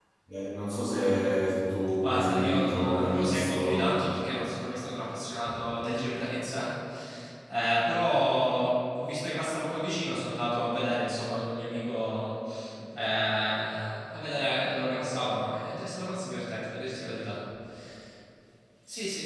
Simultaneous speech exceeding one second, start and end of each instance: 2.0-4.0

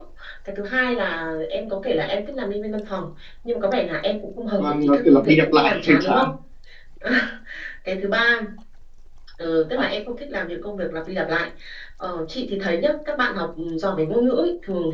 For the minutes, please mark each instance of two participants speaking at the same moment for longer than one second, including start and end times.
4.6-6.3

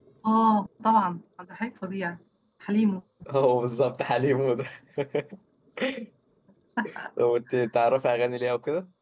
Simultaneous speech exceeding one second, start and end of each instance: none

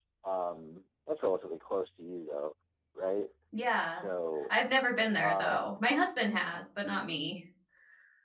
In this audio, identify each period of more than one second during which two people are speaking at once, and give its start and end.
none

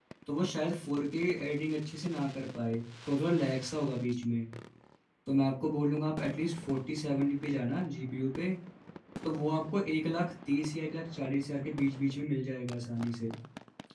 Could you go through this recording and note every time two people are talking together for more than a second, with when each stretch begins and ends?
none

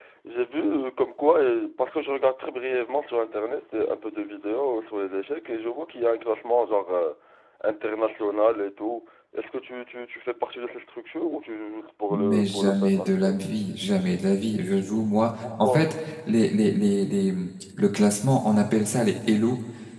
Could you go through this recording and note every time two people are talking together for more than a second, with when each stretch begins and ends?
12.1-13.4

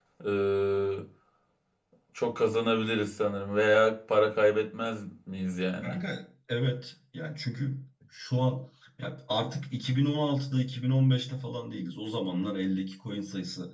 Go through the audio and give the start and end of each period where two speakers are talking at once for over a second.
none

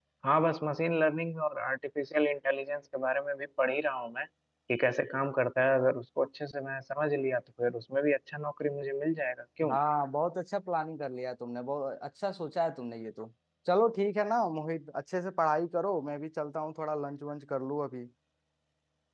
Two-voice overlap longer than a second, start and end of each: none

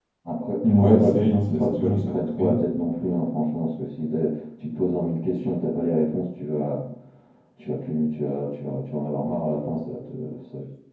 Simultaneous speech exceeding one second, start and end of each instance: 0.7-2.6

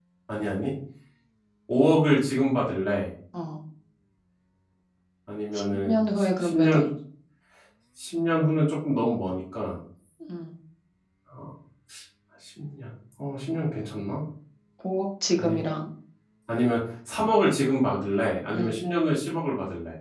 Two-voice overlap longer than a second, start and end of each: 5.5-6.8

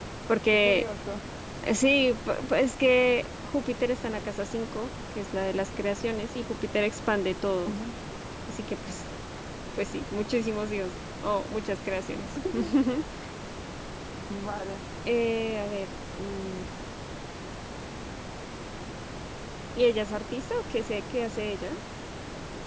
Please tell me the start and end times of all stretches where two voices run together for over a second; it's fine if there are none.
none

